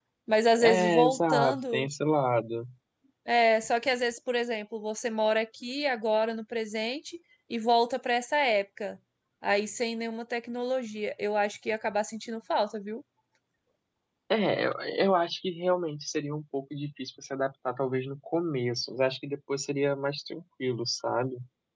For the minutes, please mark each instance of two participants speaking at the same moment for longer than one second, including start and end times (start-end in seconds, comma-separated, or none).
0.6-1.9